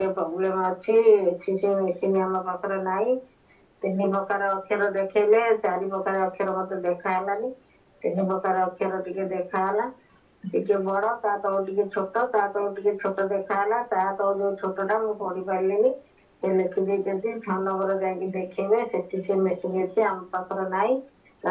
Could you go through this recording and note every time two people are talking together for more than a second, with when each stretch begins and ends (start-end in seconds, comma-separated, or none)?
none